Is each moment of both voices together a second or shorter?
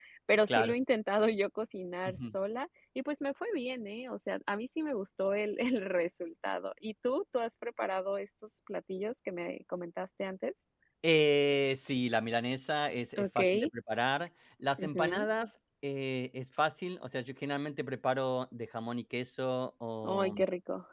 Yes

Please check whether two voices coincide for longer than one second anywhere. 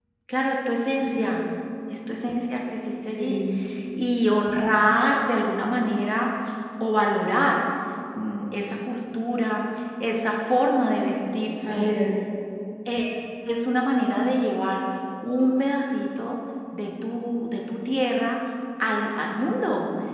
No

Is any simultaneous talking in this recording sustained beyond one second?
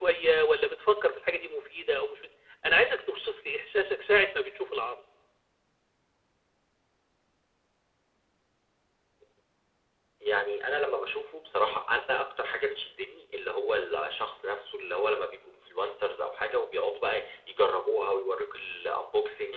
No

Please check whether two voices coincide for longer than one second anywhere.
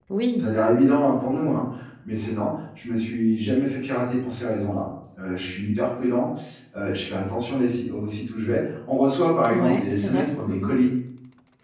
Yes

